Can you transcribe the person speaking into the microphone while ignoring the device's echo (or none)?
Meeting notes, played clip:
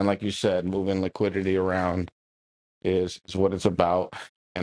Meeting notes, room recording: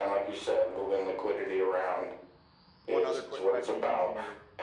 one other quick question. You mentioned your